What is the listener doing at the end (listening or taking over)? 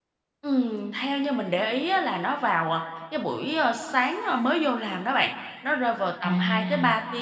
listening